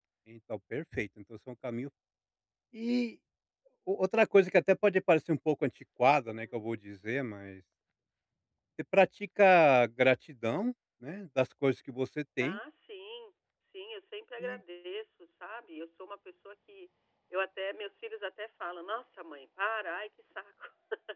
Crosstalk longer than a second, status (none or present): none